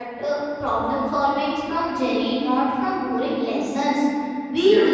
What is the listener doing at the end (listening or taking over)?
listening